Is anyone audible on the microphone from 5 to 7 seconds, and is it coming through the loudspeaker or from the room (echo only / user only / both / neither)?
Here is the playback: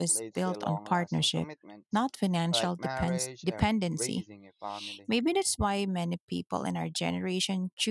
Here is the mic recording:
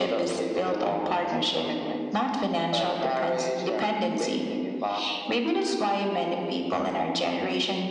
echo only